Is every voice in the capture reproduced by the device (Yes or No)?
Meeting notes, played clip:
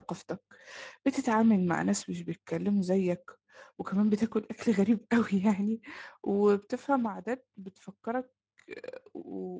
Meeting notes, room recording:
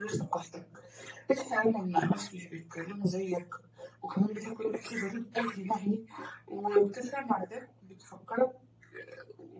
Yes